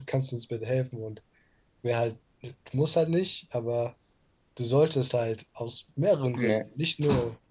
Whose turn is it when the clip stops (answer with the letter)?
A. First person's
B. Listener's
A